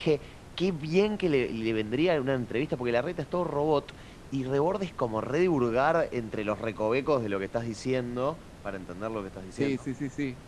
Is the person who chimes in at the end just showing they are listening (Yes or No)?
No